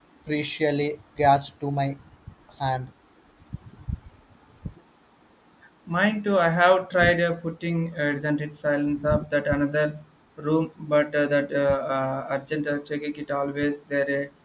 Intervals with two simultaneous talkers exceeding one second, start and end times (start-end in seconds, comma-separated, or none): none